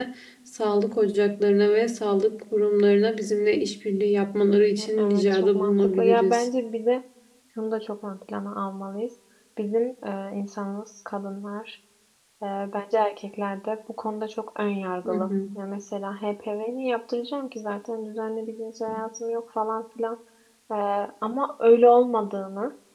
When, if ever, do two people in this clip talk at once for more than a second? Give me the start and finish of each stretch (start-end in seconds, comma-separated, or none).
4.5-6.5